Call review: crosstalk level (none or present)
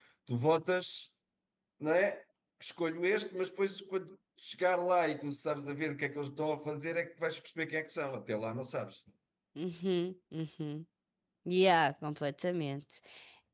none